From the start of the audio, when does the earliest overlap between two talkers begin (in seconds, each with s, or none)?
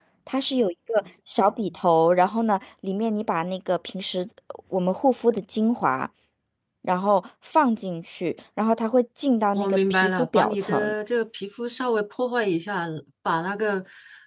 9.5 s